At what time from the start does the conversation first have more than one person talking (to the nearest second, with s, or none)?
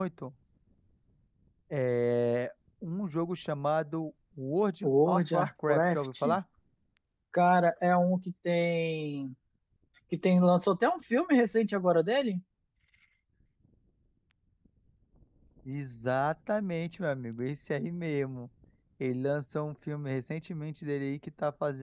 5 s